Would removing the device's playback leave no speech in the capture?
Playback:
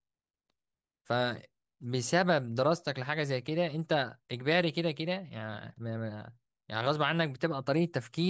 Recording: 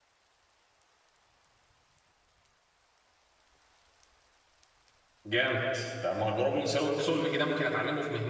No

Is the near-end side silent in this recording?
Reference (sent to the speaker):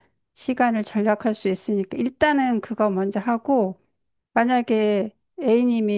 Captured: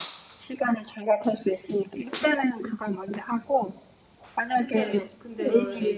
No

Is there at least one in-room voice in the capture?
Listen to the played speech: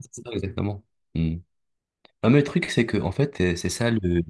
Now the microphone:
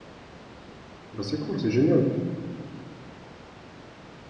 Yes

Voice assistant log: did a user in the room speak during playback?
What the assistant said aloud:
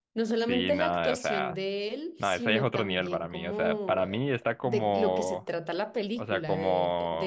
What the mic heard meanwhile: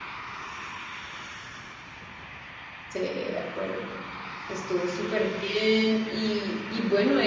Yes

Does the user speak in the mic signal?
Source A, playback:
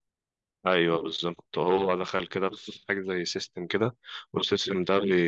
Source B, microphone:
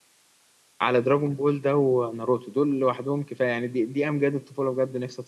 Yes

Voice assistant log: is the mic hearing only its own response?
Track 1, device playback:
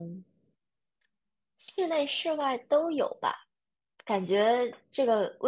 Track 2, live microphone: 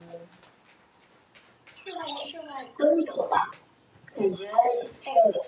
Yes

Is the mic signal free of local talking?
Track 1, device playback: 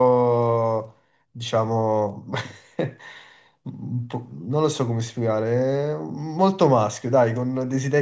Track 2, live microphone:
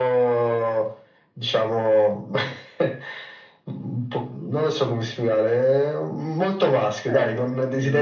No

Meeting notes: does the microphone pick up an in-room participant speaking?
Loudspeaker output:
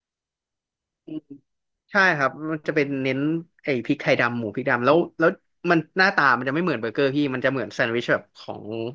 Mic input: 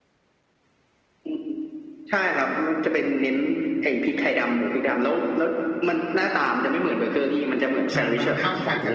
Yes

